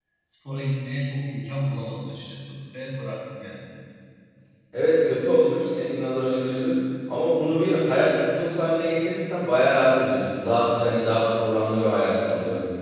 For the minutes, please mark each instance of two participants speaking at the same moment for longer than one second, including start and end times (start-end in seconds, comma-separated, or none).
none